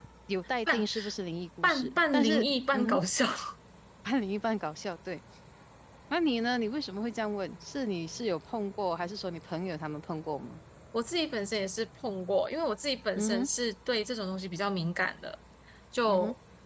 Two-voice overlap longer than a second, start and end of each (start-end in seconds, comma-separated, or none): 1.6-3.0